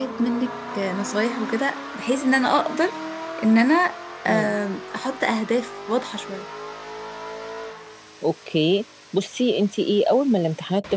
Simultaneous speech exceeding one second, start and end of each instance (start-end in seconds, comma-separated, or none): none